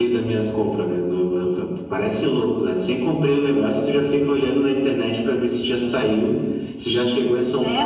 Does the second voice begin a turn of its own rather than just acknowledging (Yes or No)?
Yes